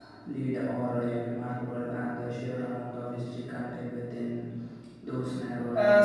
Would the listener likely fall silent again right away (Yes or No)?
No